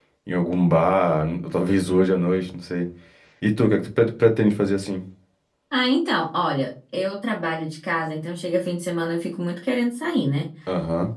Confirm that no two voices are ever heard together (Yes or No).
Yes